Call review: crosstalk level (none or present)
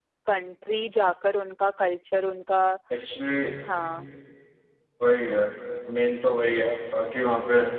none